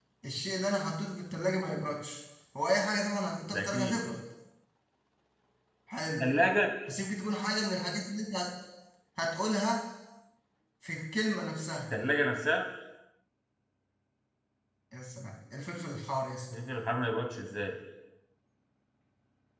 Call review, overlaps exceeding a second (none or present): none